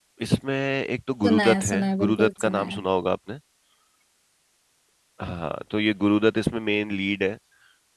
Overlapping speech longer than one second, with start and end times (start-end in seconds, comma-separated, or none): 1.2-2.8